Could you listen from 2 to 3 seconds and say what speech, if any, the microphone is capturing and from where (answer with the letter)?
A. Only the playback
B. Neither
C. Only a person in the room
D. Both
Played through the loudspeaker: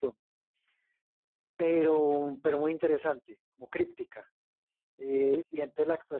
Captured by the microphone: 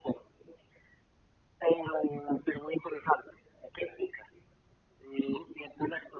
A